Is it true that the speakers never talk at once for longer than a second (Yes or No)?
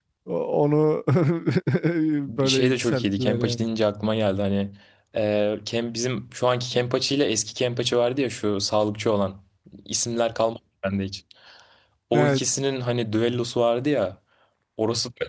No